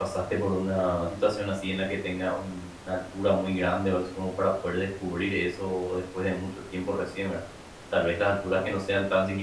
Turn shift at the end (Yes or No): No